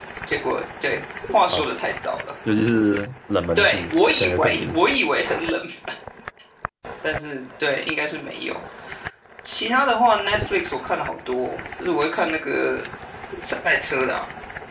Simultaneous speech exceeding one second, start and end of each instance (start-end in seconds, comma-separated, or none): 3.6-4.9